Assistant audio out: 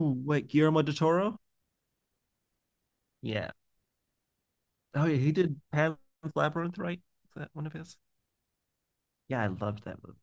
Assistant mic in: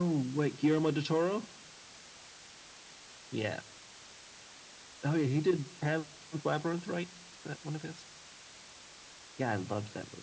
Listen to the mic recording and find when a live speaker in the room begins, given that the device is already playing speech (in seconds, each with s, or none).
none